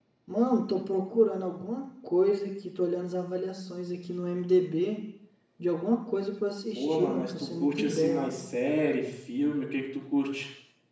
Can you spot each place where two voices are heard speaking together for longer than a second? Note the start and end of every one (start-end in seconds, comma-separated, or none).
6.8-8.3